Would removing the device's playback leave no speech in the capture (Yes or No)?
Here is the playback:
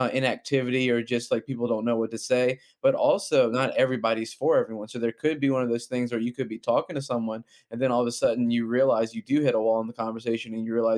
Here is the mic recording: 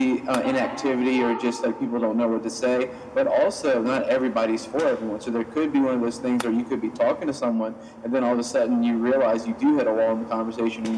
No